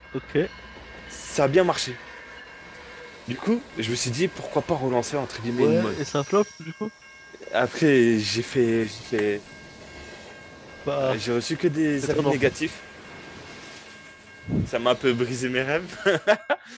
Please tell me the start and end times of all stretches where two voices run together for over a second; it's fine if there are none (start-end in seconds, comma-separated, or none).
none